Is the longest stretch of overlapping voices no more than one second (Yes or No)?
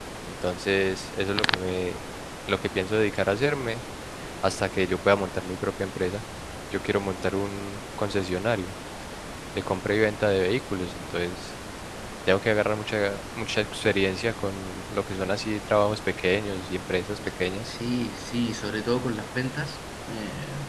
Yes